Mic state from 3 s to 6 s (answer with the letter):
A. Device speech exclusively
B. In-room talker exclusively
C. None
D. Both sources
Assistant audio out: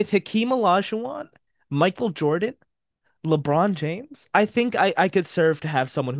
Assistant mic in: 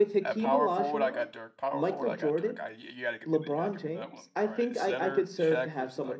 D